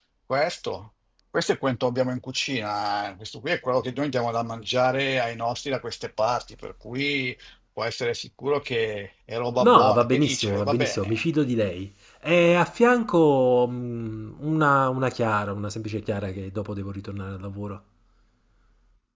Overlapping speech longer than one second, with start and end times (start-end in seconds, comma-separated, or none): 9.6-11.2